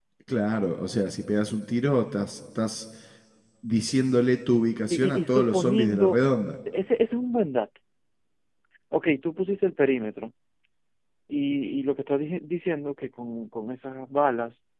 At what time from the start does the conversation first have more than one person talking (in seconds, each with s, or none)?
4.9 s